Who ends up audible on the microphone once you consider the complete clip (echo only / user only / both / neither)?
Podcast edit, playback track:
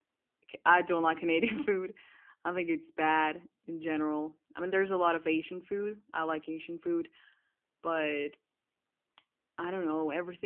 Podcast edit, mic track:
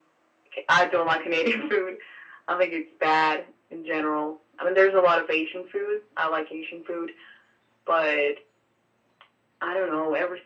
echo only